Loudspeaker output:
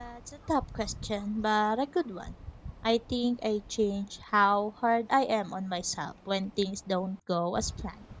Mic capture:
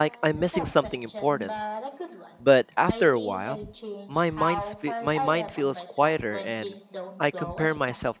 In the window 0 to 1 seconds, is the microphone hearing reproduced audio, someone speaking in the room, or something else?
both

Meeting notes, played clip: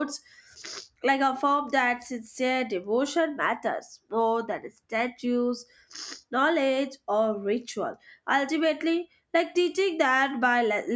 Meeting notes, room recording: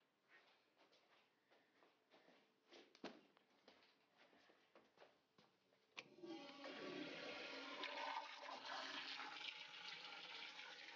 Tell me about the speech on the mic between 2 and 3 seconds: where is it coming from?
neither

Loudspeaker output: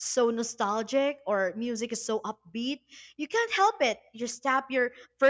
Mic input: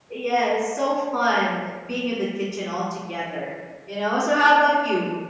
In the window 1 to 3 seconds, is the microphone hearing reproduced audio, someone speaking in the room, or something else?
user only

